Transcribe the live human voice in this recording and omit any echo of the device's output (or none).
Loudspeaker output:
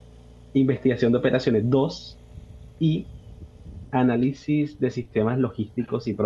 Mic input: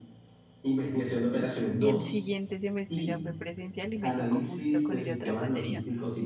Y el siguiente semestre ya fue presencial y me tocó justo con ella otra materia.